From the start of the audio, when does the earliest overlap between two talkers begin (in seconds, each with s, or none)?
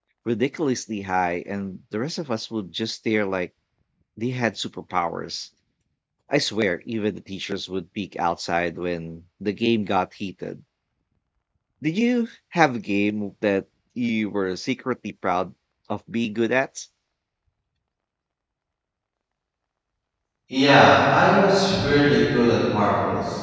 none